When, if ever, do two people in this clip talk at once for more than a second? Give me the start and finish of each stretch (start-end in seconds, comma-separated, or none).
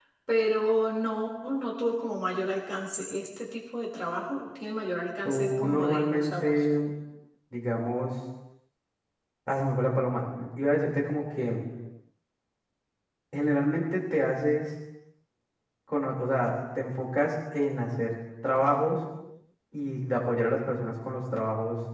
5.2-6.5